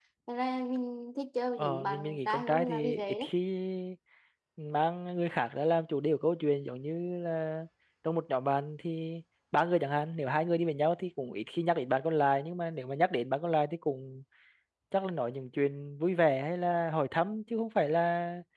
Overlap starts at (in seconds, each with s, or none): 1.6 s